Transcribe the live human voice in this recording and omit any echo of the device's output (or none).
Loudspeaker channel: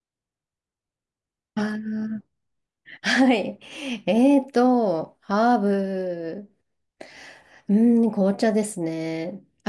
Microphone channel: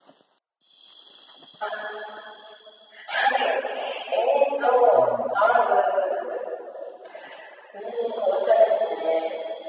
うん。